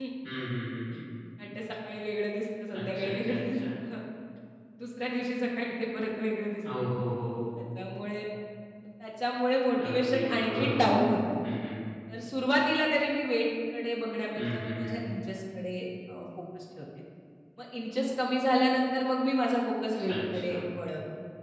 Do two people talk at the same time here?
Yes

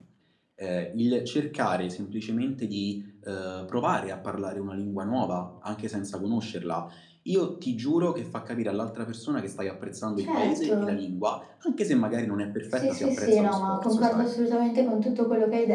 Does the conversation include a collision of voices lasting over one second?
Yes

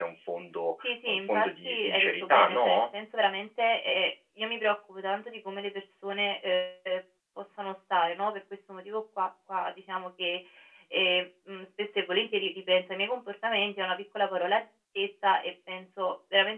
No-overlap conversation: No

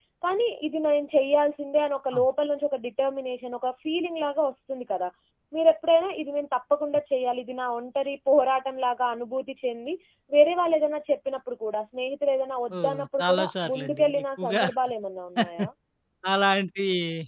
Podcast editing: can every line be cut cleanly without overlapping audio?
No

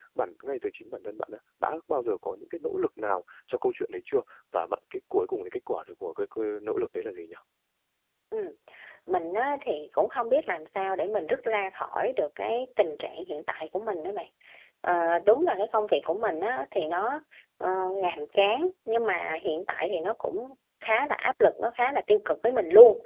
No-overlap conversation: Yes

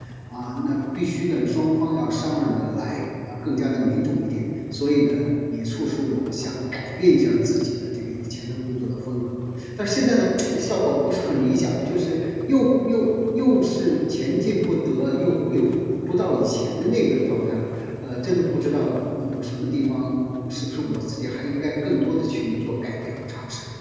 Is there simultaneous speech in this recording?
No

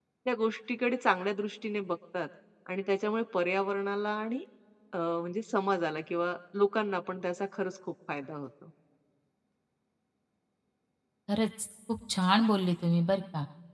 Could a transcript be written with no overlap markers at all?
Yes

